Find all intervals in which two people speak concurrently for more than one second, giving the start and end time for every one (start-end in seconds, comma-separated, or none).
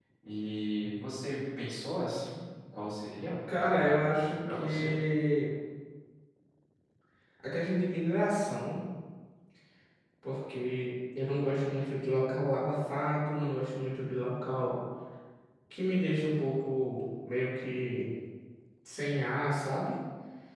3.5-4.9